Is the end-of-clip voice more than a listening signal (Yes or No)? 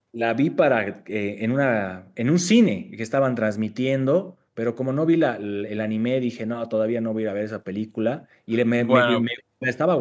No